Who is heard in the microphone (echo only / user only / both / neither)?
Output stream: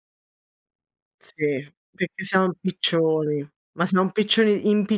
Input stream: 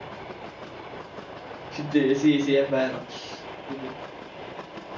user only